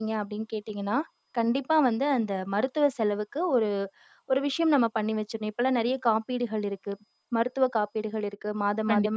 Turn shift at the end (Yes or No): No